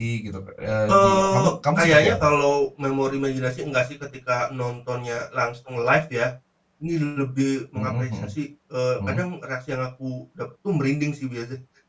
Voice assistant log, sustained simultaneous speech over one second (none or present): present